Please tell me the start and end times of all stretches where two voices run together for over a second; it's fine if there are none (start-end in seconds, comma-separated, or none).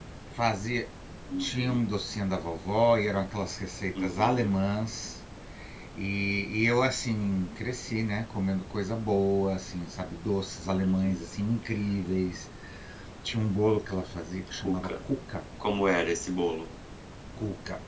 none